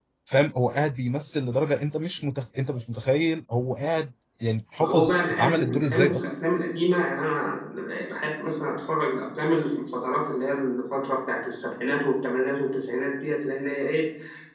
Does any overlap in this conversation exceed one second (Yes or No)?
Yes